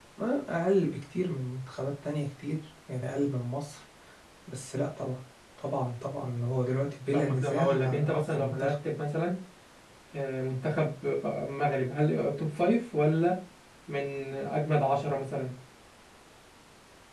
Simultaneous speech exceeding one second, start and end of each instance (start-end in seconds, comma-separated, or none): 7.1-8.7